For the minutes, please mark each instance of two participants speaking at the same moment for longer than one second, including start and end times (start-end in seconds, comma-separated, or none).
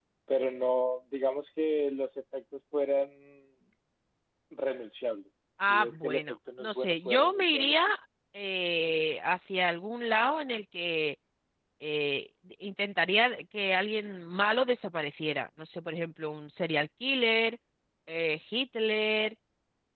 5.7-7.8